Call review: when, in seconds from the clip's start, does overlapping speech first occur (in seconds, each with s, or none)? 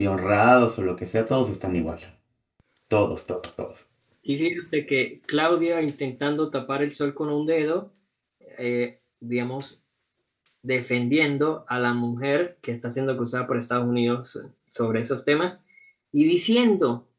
none